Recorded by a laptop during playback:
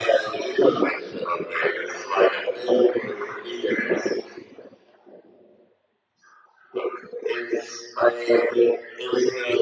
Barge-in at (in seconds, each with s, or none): none